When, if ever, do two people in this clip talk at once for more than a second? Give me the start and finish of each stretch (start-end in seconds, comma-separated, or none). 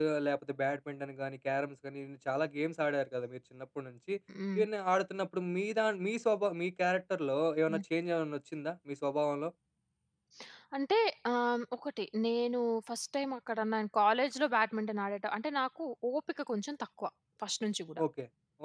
none